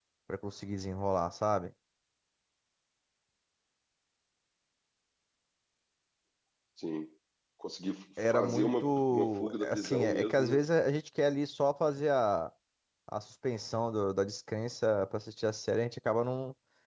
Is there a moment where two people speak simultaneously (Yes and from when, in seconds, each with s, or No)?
Yes, from 8.3 s